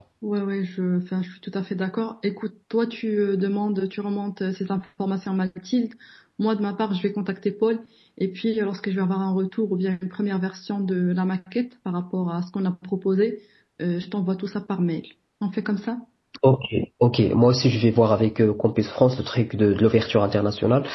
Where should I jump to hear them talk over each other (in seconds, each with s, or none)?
none